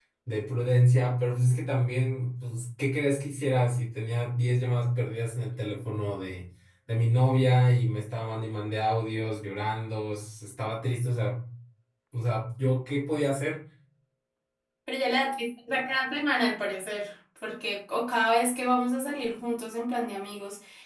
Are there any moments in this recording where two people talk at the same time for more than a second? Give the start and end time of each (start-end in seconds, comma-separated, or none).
none